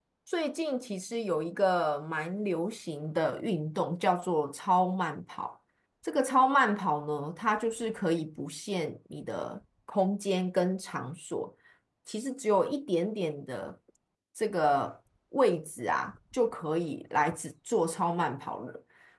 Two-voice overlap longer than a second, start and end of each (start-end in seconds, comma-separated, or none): none